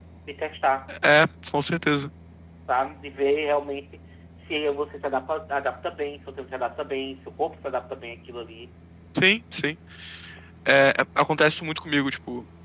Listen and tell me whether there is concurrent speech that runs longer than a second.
No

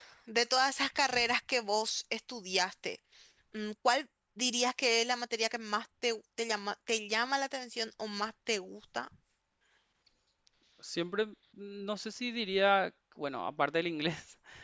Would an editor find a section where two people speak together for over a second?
No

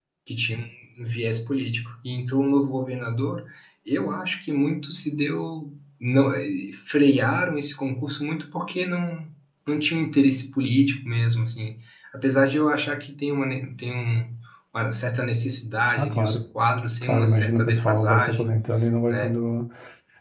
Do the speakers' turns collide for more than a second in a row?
Yes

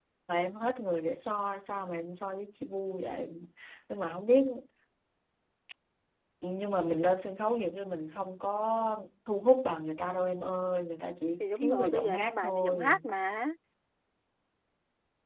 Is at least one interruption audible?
Yes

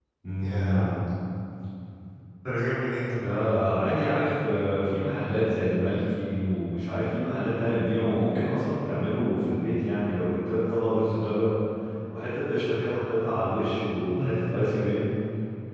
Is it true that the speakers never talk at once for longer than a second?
Yes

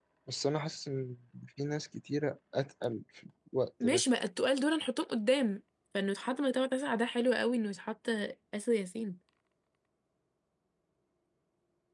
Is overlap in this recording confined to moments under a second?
Yes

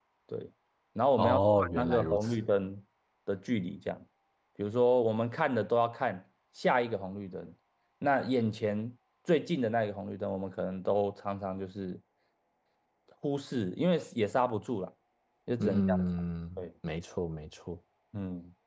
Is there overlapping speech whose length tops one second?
Yes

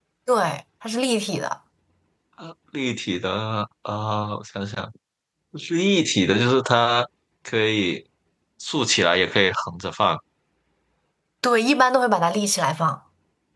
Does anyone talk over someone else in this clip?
No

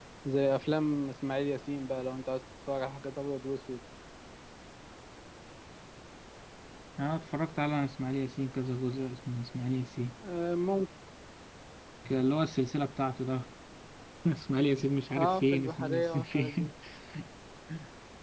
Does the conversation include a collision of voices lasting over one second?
Yes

